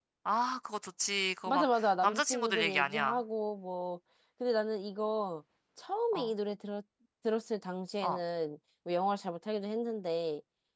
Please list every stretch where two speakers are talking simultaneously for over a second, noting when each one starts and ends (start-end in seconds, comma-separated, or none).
1.4-3.2